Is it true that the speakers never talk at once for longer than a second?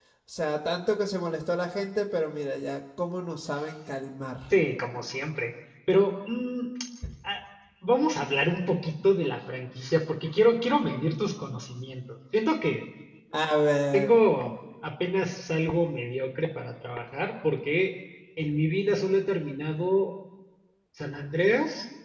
Yes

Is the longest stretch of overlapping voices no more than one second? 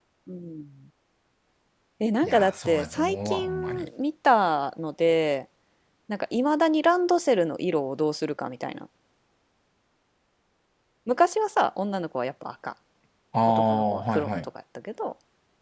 No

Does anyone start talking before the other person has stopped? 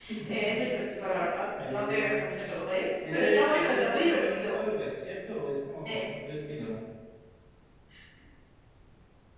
Yes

